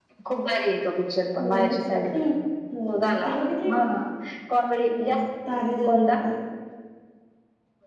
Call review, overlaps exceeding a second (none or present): none